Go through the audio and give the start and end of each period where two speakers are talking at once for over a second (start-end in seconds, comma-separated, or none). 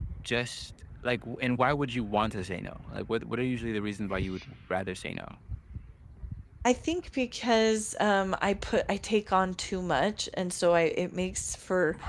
none